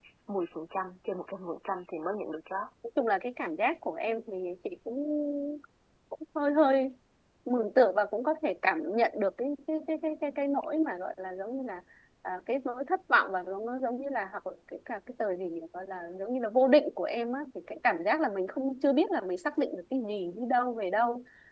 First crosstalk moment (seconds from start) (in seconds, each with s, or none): none